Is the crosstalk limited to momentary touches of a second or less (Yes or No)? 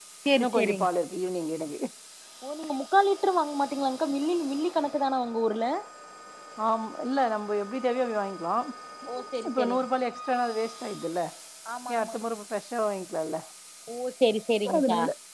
Yes